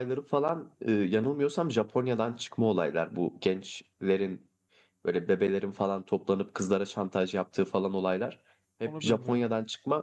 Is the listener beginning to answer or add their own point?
No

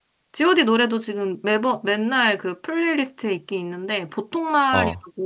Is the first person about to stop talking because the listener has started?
No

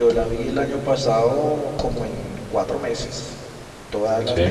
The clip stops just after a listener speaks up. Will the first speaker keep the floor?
Yes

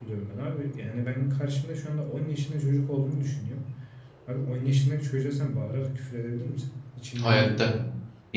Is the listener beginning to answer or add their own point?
Yes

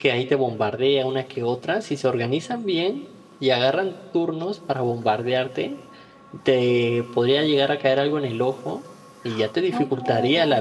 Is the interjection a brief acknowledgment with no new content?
Yes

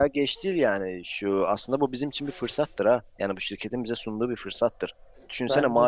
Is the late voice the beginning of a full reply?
No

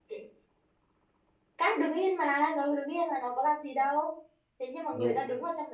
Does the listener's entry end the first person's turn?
No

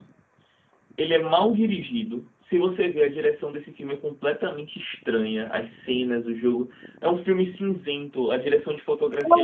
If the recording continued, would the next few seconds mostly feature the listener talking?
Yes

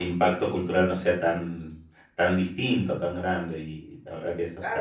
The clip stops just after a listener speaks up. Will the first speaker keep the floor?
No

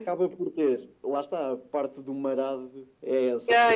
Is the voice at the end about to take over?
Yes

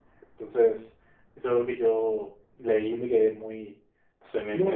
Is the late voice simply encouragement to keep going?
No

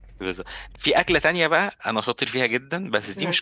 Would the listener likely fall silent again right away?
Yes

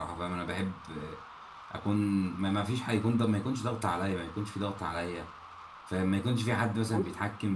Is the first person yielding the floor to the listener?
No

